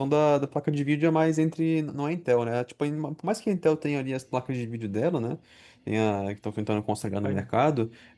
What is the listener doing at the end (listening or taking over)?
listening